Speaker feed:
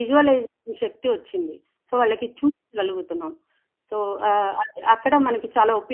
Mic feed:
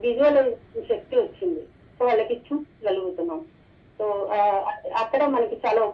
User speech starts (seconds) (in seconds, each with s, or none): none